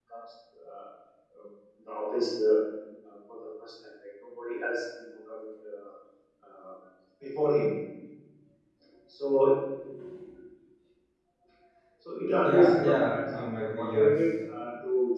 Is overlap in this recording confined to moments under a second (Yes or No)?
No